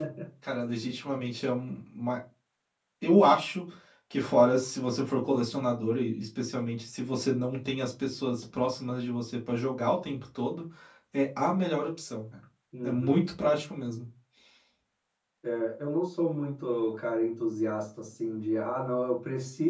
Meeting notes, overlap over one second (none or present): none